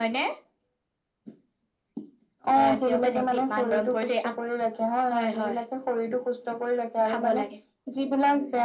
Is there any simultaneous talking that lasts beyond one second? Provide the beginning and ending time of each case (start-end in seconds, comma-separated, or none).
2.9-4.1